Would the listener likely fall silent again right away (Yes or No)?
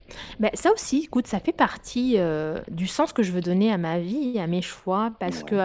Yes